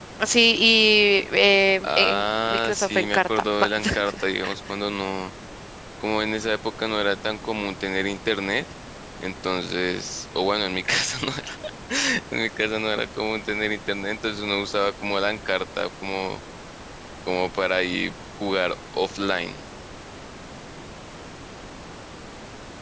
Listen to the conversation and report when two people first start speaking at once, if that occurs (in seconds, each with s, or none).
1.8 s